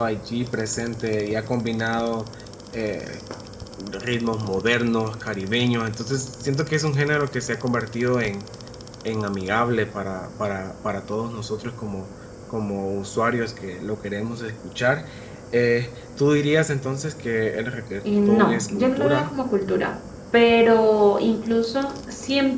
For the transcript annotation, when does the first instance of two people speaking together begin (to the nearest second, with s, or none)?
18 s